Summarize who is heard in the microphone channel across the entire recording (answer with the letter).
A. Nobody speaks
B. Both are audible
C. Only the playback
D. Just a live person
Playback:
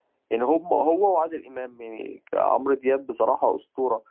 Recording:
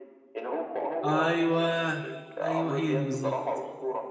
B